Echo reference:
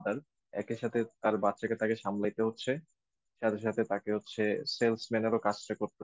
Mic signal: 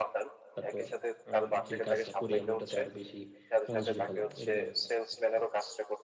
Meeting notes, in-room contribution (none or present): present